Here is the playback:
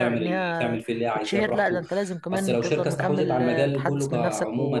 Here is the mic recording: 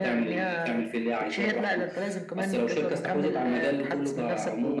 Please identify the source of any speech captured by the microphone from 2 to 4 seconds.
echo only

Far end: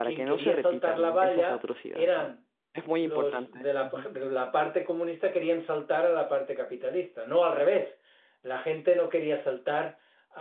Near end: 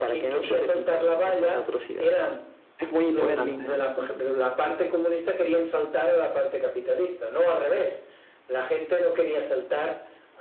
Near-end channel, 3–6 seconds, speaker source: both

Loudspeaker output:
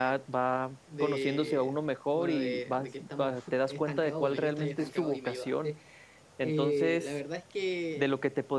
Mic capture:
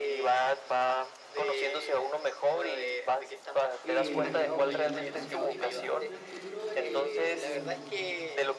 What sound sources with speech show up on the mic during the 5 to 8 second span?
both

